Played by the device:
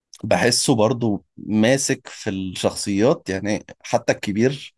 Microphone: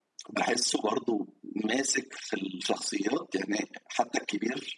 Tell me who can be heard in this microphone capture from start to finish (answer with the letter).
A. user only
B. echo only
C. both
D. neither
B